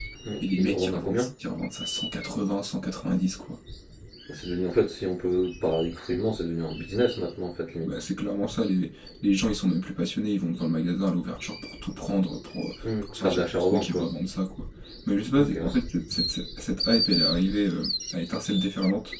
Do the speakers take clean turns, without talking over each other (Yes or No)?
No